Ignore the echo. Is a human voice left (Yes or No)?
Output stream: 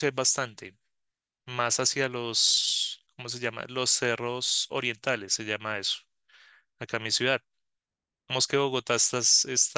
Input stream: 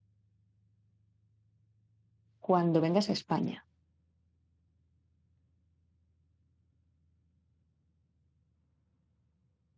Yes